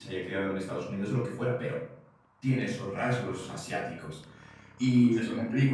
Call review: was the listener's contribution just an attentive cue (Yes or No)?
Yes